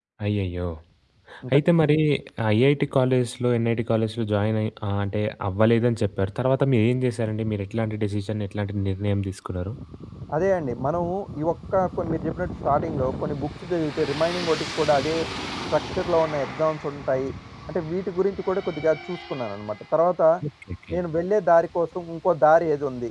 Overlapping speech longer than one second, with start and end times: none

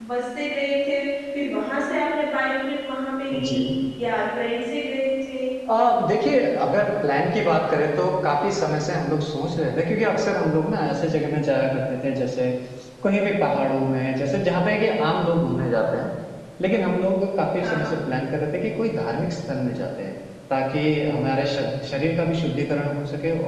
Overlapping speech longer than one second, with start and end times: none

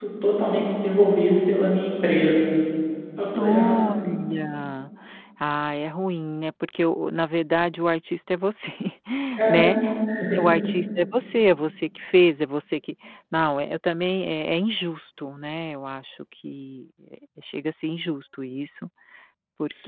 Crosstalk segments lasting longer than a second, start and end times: none

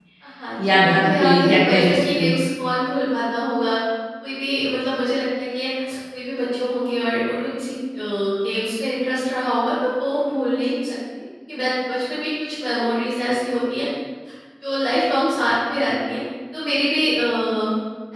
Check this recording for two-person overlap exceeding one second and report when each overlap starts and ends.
0.6-2.2

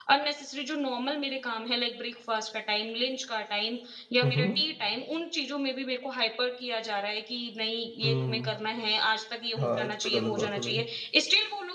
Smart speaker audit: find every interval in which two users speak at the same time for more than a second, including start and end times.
9.6-10.8

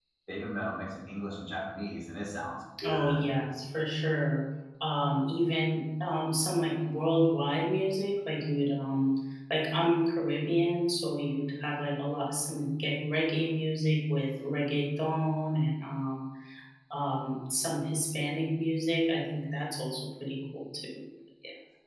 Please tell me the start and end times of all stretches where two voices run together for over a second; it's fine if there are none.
none

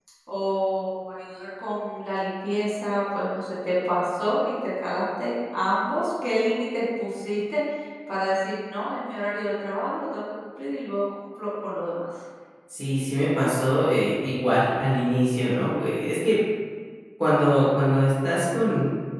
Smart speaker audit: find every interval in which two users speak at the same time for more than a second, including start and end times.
none

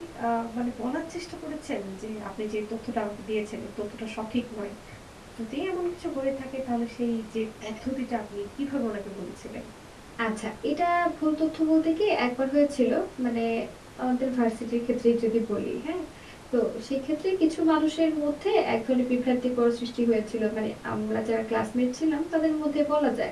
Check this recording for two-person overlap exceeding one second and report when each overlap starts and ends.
none

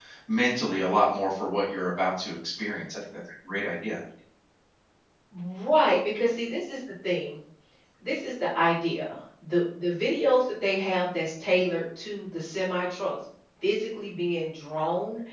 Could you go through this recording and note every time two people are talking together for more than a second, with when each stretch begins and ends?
none

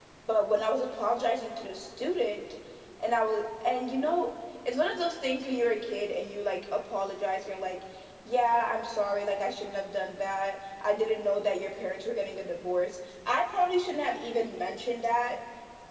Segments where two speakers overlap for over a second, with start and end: none

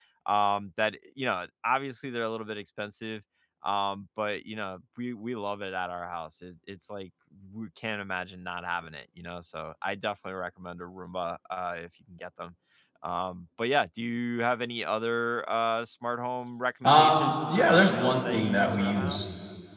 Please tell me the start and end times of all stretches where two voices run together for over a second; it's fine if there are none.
16.8-19.2

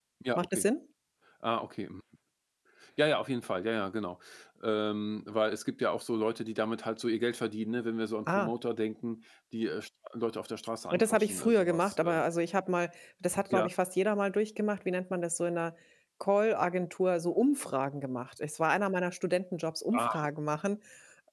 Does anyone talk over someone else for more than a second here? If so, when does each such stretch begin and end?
10.9-12.2

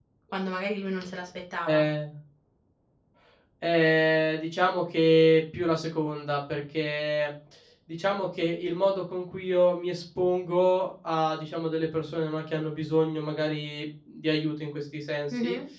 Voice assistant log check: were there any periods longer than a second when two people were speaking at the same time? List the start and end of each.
none

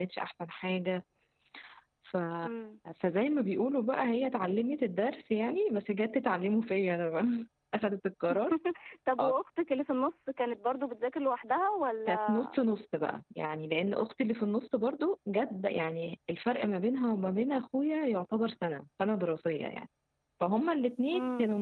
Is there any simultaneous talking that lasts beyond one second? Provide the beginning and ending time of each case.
none

